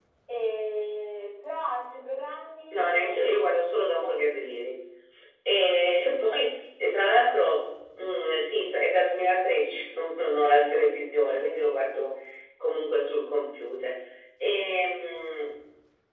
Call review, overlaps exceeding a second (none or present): present